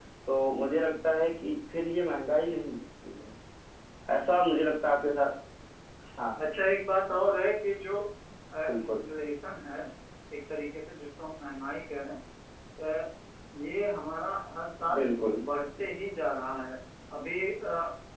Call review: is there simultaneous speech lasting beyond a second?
No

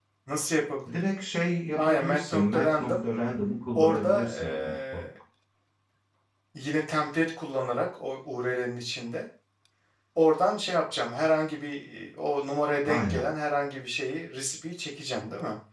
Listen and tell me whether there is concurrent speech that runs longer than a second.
Yes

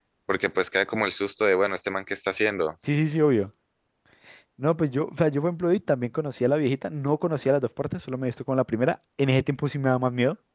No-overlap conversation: Yes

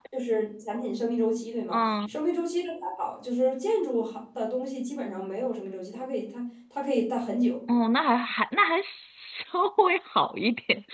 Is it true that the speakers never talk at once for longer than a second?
Yes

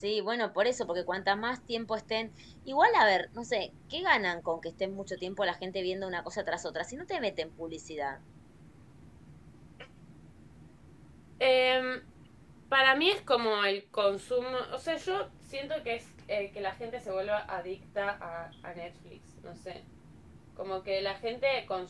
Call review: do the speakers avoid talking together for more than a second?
Yes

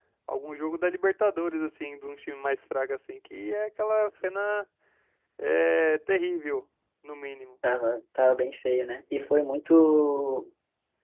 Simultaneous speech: No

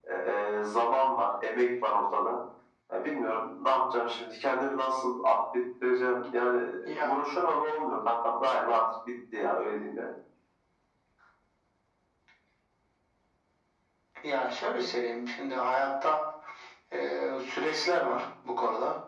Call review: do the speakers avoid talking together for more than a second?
Yes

